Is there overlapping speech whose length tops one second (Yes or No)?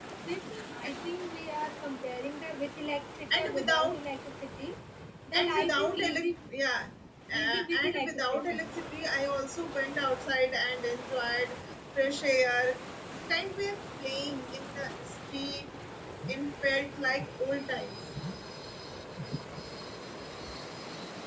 Yes